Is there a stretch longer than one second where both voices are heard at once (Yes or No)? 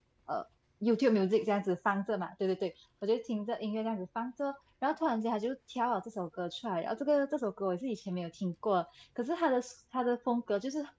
No